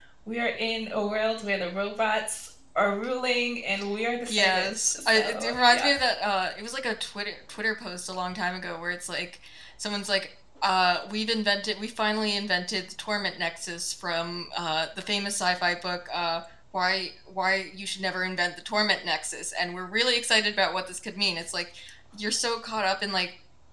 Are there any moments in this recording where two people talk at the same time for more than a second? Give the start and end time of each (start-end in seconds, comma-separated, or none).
4.3-5.9